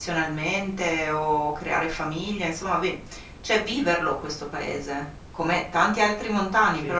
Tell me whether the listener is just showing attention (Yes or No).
Yes